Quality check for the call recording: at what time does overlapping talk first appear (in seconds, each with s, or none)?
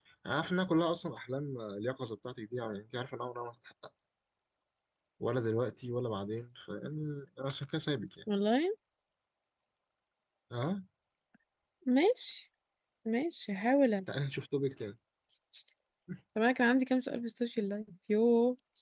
none